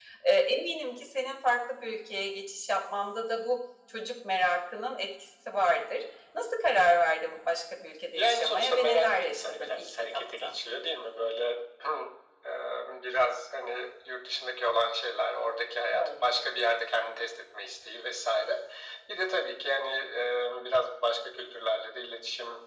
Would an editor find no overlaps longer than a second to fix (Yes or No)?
No